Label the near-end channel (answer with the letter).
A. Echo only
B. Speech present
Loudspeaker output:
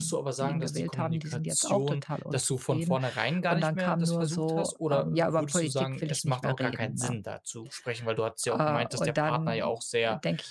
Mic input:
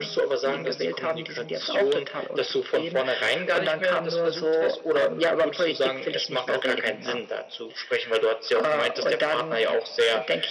A